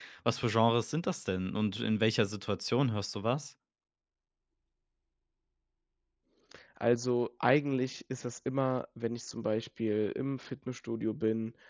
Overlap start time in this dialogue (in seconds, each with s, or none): none